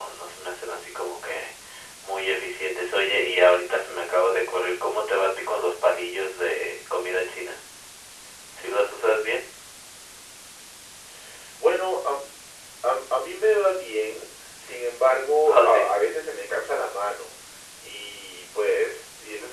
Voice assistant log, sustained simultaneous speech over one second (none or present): none